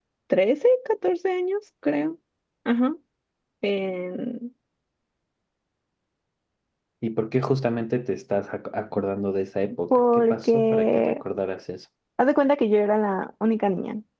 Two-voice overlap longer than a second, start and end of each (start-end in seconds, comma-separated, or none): 9.9-11.2